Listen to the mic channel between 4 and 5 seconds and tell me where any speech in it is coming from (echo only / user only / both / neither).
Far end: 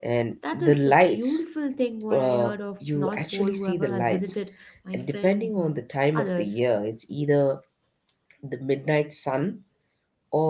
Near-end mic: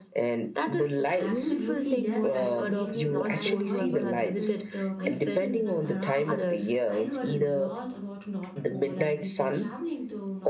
both